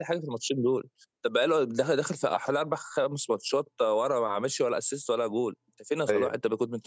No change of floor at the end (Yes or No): Yes